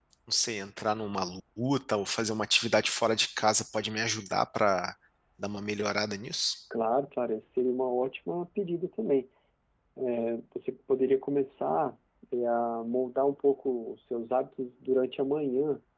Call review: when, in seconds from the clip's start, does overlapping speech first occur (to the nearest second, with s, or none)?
none